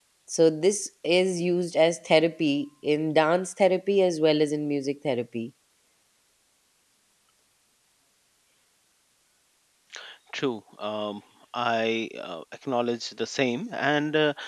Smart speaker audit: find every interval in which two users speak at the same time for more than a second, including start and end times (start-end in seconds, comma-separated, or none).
none